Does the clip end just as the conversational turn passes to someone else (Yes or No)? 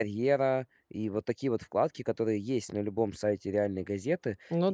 No